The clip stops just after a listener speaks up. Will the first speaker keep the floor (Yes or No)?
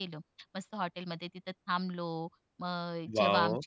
Yes